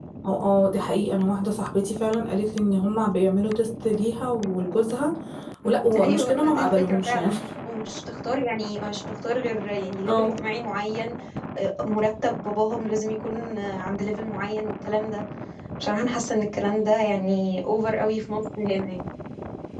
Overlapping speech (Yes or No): Yes